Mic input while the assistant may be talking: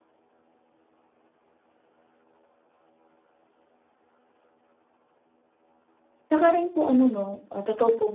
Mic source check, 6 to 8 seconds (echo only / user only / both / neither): user only